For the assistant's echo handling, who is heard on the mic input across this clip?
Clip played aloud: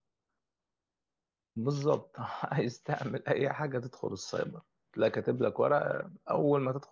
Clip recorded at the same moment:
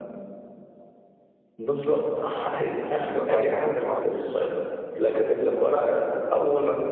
both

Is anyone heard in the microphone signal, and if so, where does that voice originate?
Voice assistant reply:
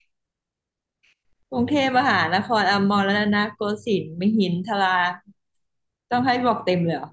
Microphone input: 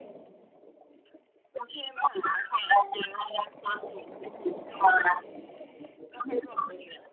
echo only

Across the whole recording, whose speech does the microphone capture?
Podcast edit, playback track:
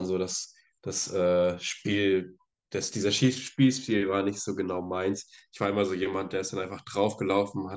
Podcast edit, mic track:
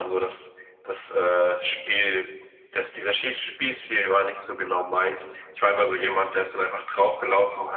echo only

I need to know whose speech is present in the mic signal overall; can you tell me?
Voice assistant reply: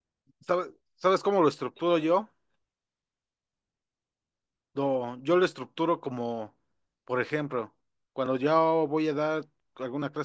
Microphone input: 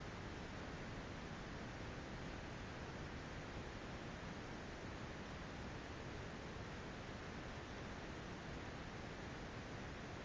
neither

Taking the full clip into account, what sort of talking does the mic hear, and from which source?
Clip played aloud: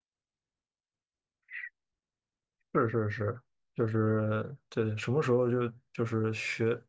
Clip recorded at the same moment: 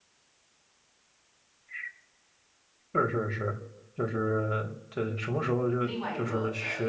both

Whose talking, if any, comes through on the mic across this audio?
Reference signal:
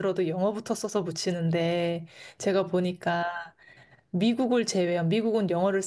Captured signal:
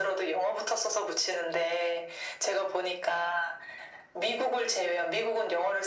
echo only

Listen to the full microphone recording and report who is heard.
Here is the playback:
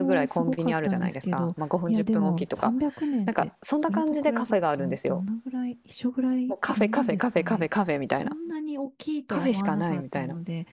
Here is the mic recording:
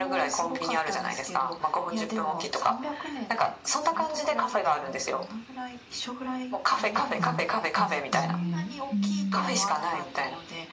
both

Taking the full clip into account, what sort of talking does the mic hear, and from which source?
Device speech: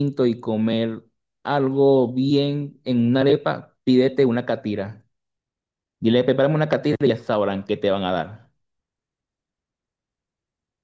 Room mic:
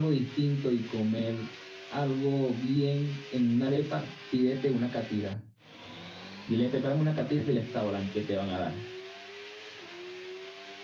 echo only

